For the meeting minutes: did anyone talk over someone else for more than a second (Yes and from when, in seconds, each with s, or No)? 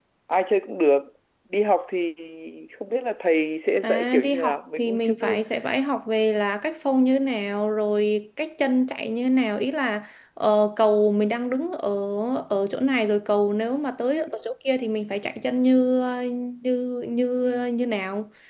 Yes, from 3.8 s